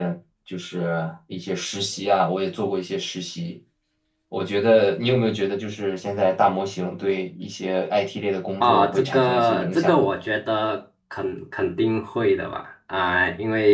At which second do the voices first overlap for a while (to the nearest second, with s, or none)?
9 s